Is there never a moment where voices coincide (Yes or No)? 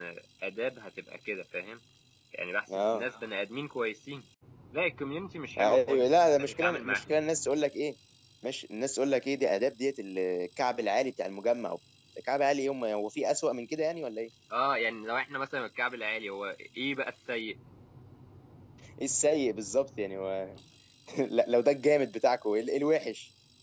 No